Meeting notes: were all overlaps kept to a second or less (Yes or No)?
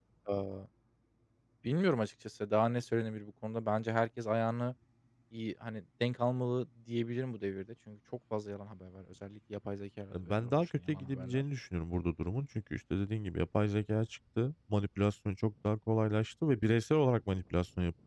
No